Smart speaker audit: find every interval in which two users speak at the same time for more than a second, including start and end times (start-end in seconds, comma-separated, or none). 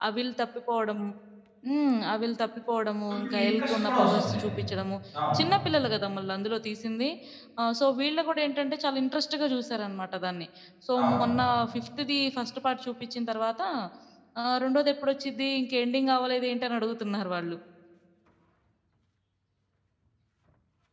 3.1-4.4